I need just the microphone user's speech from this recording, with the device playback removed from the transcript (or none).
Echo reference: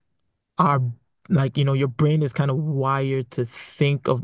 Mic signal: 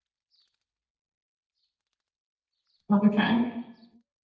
Okay.